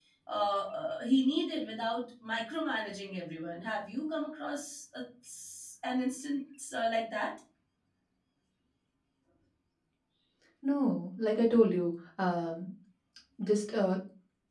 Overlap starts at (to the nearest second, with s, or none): none